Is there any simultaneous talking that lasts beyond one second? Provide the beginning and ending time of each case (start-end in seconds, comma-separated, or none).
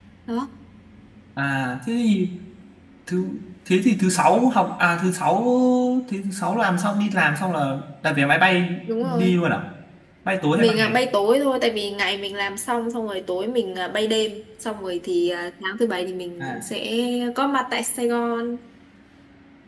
none